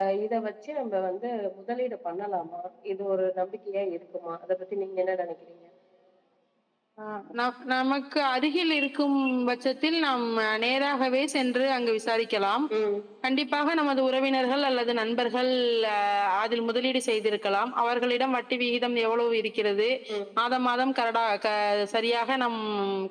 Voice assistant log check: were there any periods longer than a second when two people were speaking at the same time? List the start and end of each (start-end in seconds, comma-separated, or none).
none